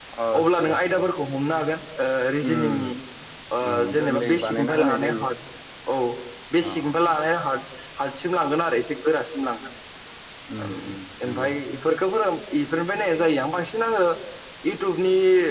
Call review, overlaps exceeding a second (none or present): present